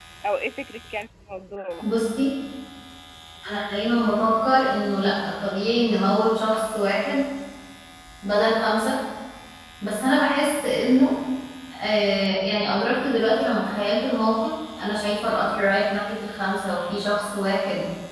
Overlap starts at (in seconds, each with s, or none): none